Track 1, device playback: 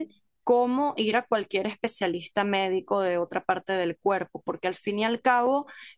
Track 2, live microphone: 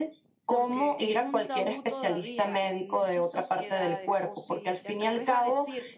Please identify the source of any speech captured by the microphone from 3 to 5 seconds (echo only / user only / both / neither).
both